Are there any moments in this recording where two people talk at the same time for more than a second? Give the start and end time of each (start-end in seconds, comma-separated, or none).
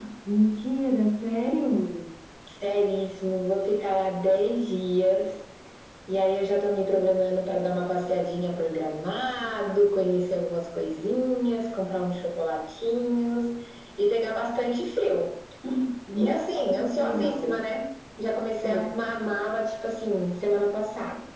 16.2-17.6